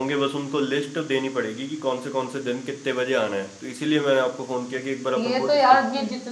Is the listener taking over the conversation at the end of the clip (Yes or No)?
Yes